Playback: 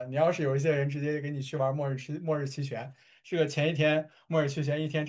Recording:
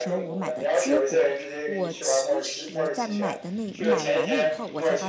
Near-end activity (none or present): present